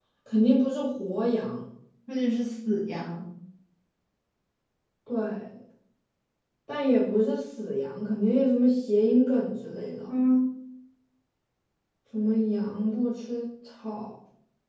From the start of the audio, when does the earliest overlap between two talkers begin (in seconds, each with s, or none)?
none